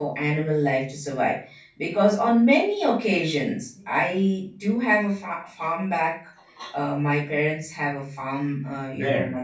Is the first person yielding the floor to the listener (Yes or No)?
No